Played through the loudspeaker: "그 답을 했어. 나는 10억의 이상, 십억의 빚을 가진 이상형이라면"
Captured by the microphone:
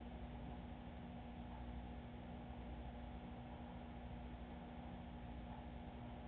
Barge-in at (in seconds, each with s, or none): none